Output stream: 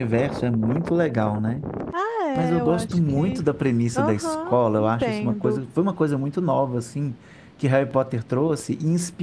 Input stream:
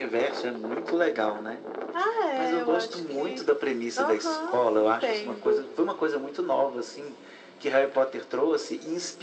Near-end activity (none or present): none